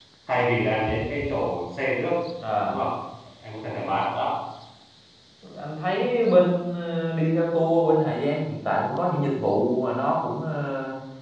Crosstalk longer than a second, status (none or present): none